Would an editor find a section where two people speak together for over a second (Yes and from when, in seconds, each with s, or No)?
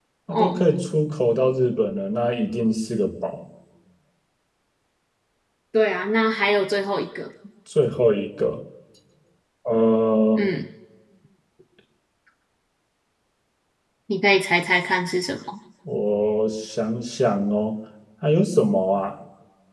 No